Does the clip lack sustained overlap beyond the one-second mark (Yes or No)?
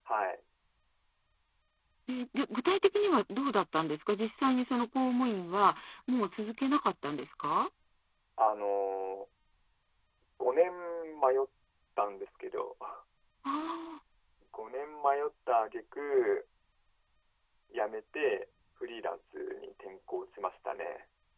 Yes